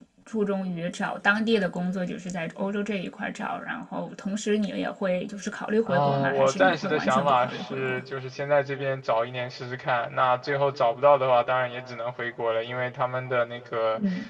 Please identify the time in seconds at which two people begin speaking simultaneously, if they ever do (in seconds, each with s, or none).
5.9 s